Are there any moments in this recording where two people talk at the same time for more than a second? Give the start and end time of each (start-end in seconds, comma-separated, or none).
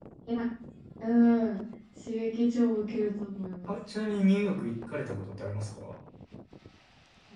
none